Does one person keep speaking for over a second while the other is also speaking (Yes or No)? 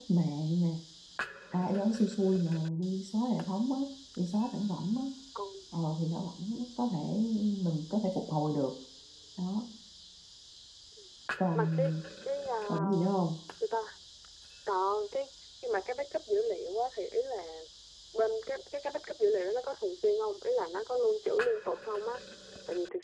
No